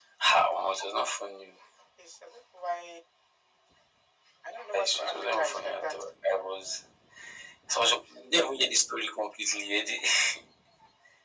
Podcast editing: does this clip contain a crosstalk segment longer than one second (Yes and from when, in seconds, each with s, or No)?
Yes, from 4.7 s